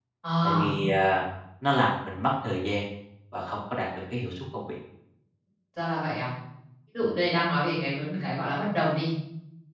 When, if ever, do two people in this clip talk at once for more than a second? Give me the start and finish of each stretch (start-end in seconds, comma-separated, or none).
none